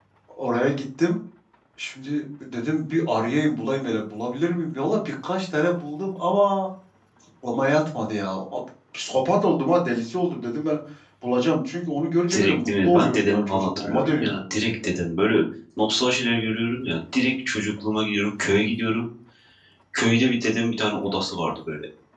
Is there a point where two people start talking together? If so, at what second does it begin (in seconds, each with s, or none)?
12.3 s